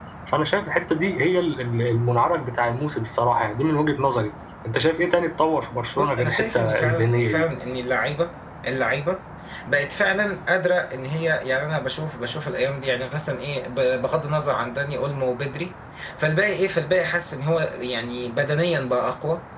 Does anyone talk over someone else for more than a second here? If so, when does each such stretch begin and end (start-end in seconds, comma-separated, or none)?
6.0-7.5